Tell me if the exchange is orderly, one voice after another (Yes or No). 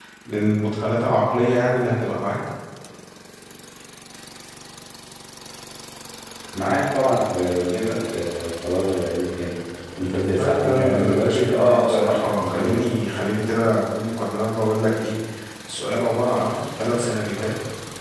No